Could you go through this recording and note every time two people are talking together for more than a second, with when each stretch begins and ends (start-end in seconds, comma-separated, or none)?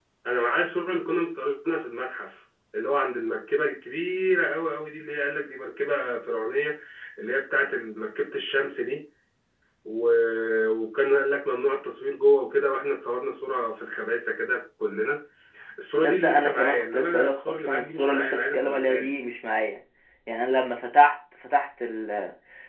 16.0-19.2